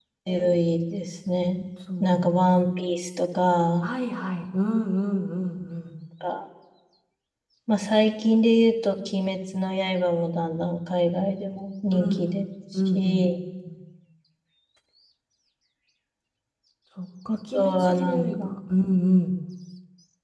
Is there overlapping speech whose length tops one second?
Yes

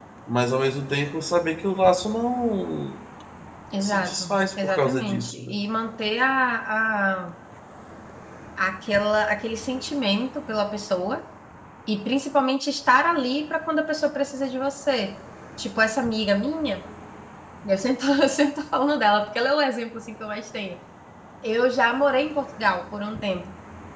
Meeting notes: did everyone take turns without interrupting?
No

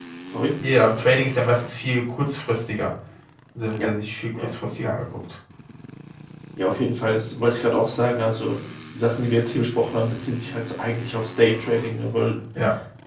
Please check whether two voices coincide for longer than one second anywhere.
No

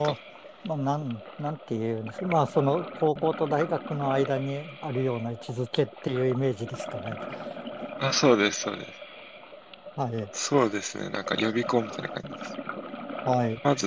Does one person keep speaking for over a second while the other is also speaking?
No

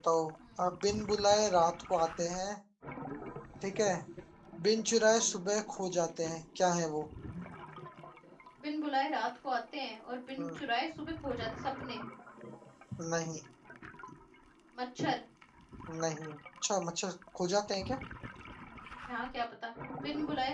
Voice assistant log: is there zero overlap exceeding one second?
Yes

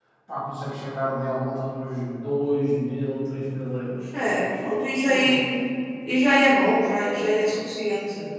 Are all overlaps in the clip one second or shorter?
Yes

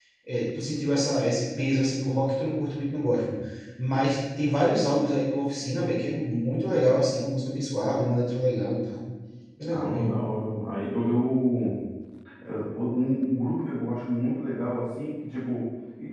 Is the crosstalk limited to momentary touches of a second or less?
Yes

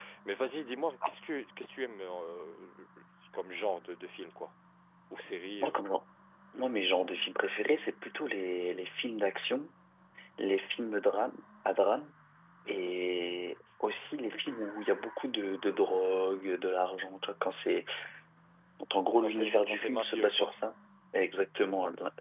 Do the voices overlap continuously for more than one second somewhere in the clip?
Yes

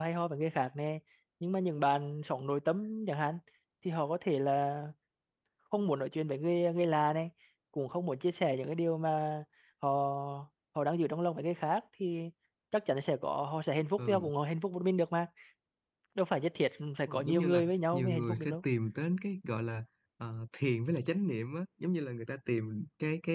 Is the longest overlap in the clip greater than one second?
Yes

